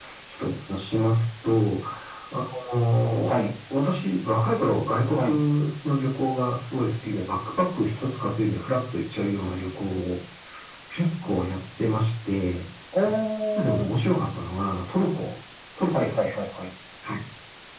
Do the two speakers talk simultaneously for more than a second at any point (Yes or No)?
No